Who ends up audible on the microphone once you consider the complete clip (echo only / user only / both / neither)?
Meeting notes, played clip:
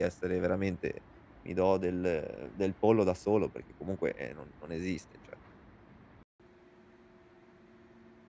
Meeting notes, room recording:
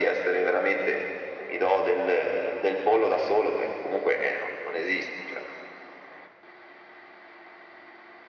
echo only